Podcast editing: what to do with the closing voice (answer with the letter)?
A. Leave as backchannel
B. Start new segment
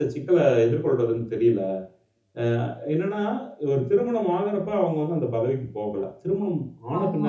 A